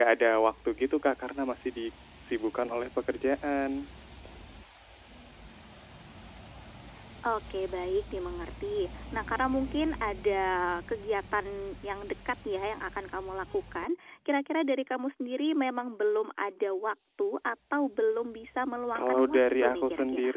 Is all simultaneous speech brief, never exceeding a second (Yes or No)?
No